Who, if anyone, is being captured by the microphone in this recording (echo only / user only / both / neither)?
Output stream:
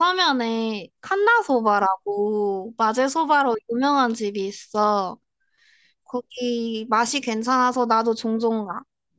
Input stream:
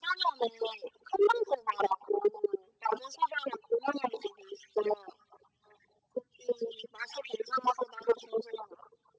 echo only